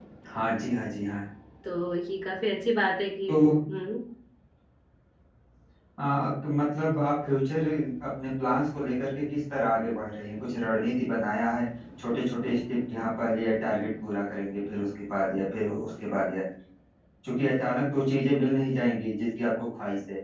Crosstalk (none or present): none